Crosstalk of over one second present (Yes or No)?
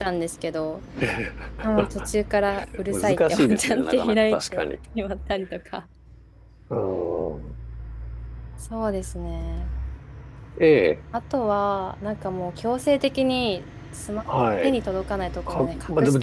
Yes